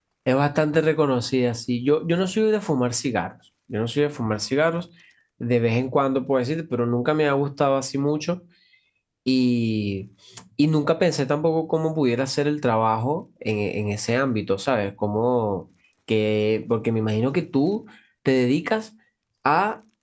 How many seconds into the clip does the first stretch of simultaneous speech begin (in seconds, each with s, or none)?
none